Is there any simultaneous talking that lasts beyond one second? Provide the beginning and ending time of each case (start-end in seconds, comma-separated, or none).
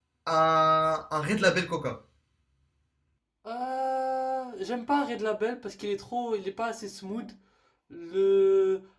none